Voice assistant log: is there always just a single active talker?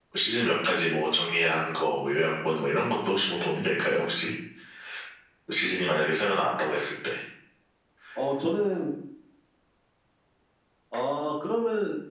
Yes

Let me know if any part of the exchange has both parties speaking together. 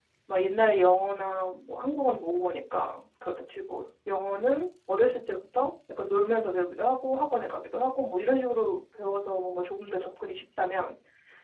No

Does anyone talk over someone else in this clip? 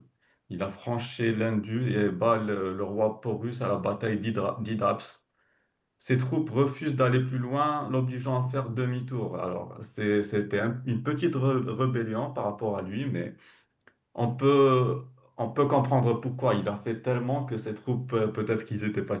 No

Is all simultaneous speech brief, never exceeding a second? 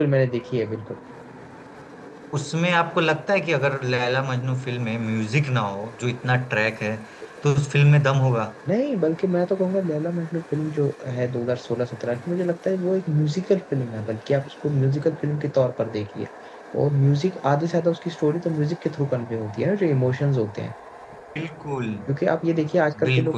Yes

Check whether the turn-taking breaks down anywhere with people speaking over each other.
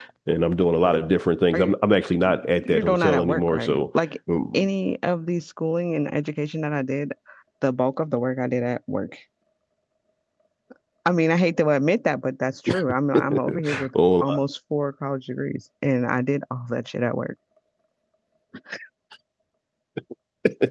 Yes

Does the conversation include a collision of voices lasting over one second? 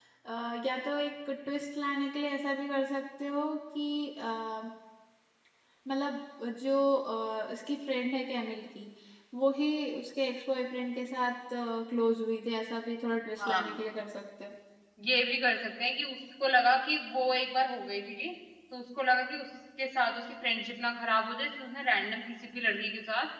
No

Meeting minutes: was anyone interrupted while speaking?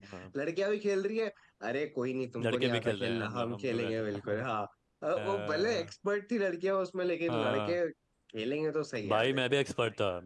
Yes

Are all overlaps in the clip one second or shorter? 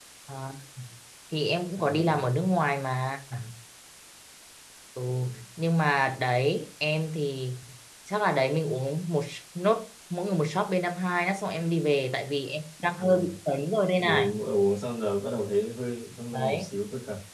Yes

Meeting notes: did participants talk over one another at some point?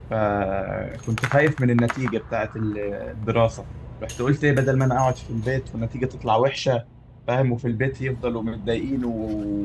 No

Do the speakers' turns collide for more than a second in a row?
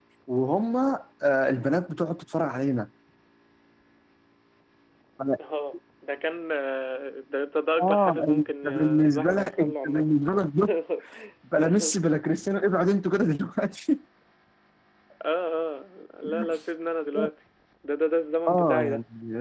Yes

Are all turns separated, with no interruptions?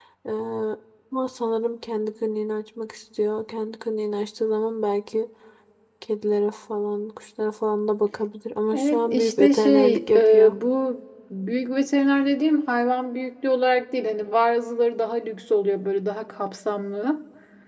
No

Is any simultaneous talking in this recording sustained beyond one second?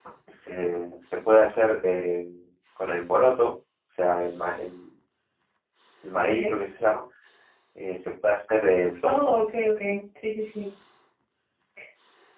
No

